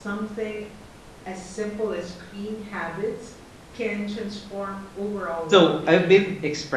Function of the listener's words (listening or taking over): taking over